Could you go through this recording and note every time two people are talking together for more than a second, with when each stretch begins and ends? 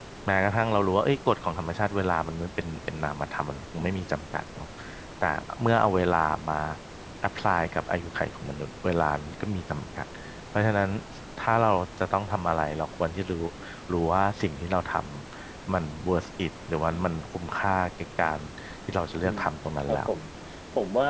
none

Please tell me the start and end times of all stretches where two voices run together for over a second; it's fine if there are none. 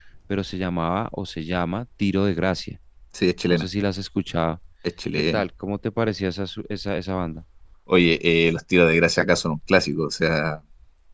none

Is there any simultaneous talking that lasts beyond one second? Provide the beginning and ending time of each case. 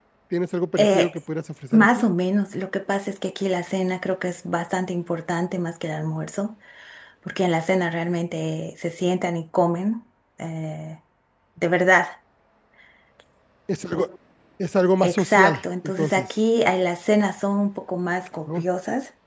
15.0-16.3

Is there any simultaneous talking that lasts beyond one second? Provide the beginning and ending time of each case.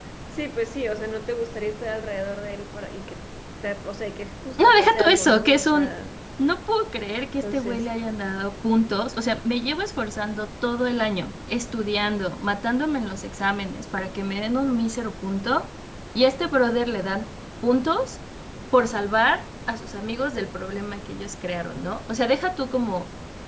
4.6-5.9

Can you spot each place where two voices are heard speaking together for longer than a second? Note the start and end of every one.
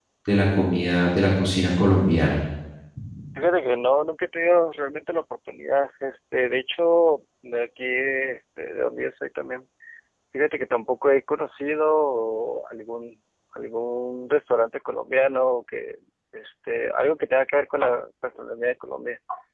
none

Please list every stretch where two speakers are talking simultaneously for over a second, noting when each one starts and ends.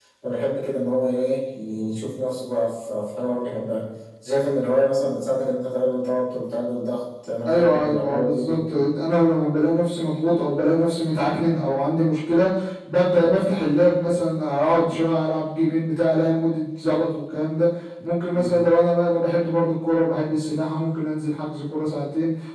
7.5-8.8

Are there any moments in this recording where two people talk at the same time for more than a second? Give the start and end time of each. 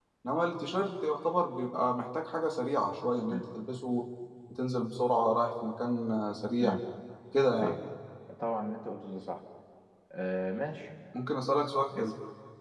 none

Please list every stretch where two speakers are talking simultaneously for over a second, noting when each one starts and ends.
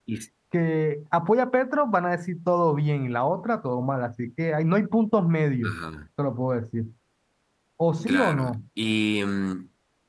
none

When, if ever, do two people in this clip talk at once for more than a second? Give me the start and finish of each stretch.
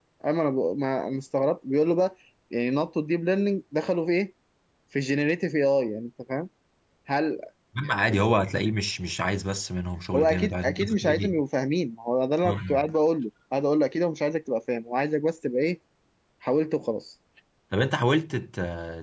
10.2-11.4

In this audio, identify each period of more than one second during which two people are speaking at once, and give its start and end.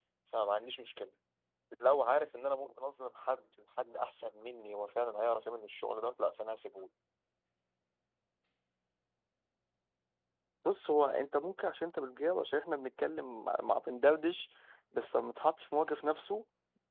none

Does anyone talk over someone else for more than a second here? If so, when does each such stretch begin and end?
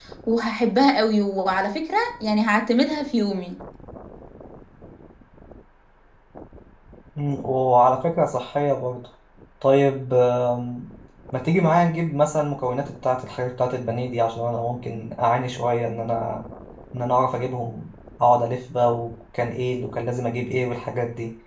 none

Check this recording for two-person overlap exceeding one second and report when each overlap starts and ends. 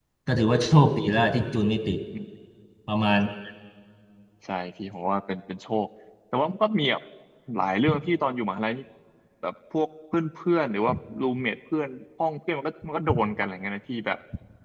none

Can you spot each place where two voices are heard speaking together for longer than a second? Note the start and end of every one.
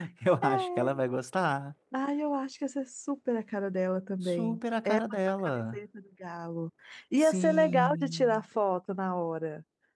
7.2-8.4

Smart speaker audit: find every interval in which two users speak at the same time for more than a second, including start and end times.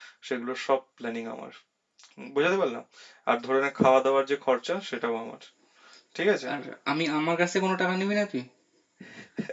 none

